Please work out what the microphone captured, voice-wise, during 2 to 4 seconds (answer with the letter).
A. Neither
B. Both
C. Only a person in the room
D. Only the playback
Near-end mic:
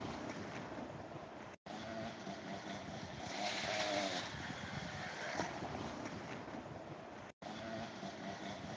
A